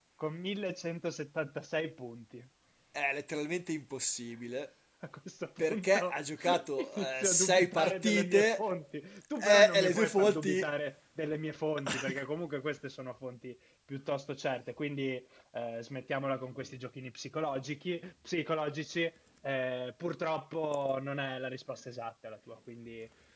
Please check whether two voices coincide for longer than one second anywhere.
Yes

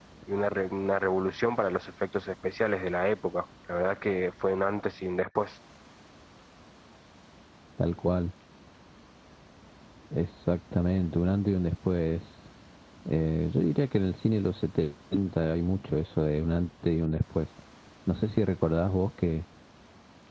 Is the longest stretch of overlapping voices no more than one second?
Yes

